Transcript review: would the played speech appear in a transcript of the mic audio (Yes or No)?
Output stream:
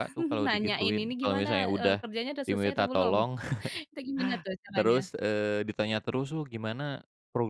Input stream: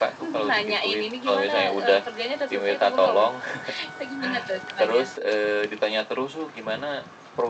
Yes